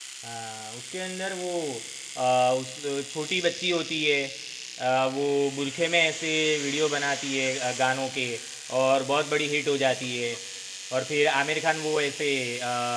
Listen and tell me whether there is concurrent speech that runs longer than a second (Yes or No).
No